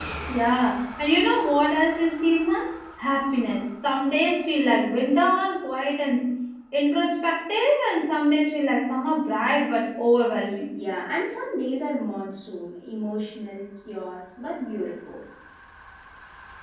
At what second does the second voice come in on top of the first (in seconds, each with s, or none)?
none